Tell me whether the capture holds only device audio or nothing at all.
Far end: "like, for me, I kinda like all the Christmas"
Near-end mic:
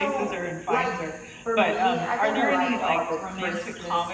No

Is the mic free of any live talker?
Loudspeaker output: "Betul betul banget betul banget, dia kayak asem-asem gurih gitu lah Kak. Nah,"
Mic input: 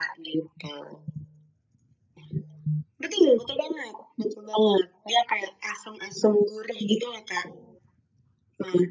Yes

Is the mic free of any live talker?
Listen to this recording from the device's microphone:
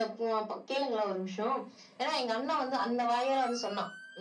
Yes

